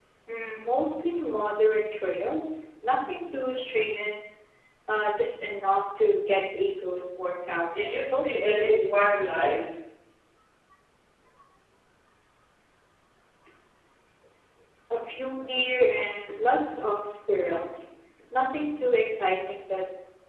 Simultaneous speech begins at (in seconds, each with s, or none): 7.7 s